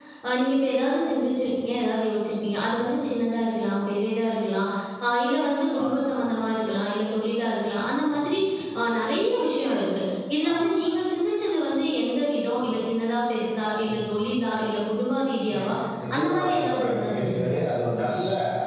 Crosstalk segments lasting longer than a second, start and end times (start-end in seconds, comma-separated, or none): 16.2-17.6